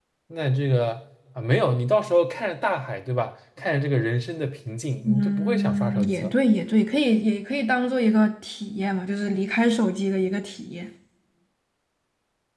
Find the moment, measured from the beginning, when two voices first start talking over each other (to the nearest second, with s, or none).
5 s